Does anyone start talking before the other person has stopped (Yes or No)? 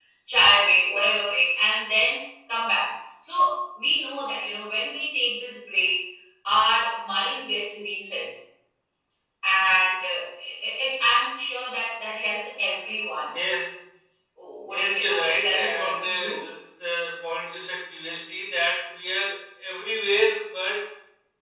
Yes